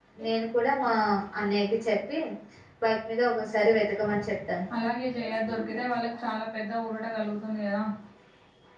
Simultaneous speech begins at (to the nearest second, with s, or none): none